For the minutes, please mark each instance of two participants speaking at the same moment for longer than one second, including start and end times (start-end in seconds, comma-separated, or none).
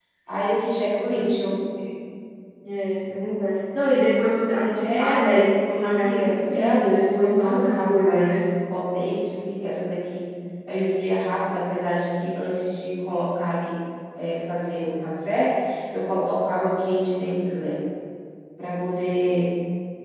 4.8-8.4